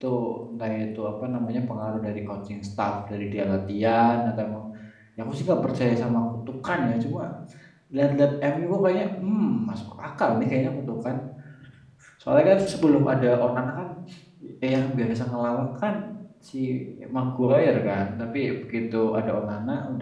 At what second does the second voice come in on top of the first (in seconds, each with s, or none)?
none